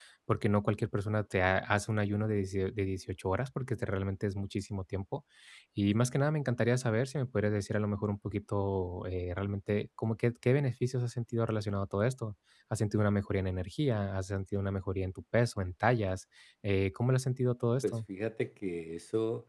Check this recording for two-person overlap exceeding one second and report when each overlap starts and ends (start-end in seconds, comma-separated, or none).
none